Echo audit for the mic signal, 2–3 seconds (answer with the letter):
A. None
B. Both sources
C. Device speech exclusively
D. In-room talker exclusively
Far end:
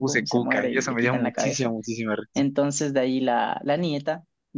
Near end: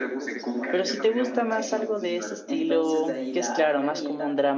B